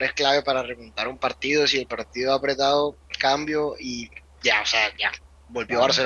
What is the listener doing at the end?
listening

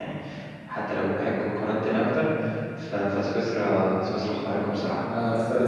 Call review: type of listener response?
taking over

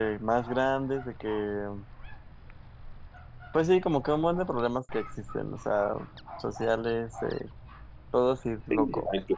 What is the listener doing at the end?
taking over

